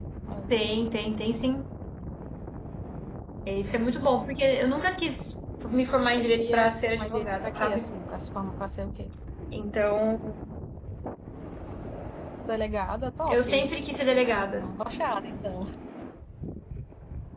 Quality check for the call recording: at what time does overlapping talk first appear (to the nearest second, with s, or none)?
6 s